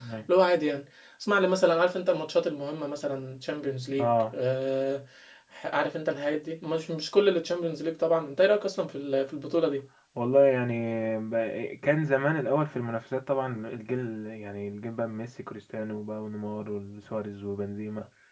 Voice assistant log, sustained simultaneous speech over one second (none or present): none